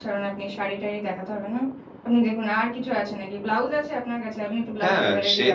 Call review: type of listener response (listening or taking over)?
taking over